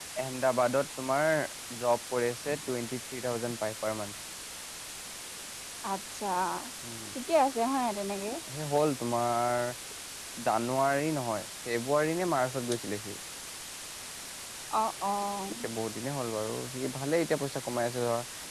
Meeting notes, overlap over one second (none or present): none